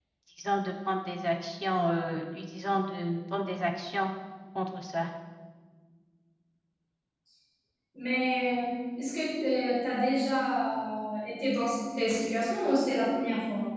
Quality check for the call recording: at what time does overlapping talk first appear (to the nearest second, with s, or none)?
none